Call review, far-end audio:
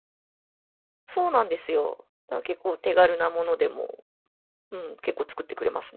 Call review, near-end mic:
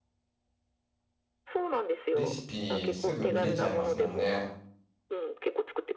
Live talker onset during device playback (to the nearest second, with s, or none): 2 s